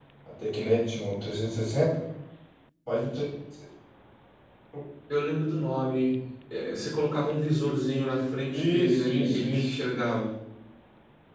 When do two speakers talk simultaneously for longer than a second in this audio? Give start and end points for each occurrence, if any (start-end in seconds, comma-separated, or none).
8.5-9.8